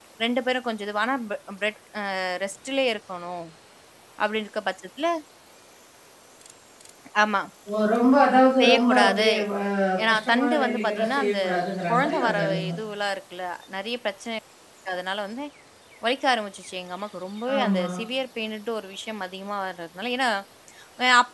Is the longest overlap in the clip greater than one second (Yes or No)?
Yes